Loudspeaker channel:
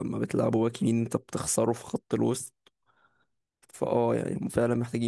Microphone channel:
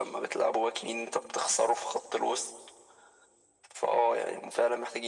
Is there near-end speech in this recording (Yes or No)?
No